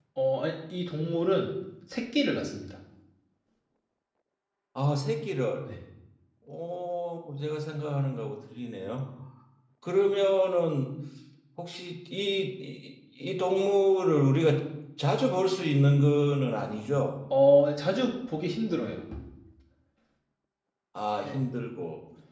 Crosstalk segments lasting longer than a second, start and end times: none

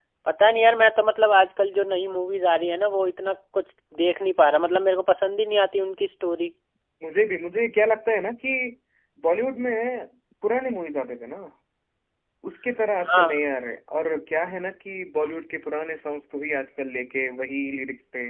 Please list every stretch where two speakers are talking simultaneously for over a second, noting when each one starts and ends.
none

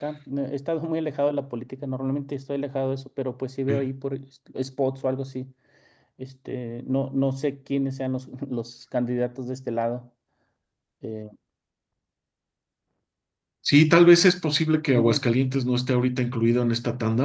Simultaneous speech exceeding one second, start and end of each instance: none

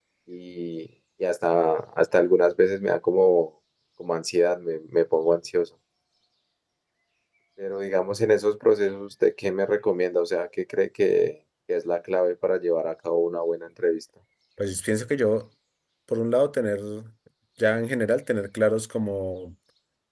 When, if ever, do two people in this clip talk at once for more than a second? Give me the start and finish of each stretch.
none

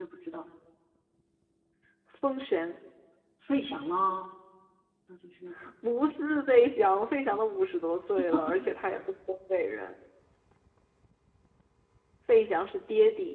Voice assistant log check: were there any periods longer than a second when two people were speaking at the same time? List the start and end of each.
none

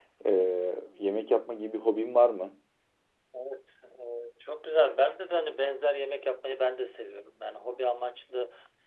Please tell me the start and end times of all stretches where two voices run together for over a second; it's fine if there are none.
none

